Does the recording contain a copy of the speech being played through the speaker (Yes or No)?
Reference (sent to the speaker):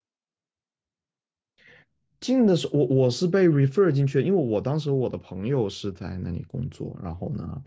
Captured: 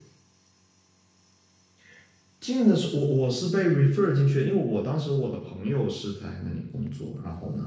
Yes